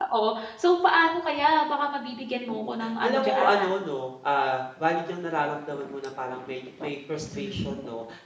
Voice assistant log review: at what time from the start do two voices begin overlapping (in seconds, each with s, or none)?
2.5 s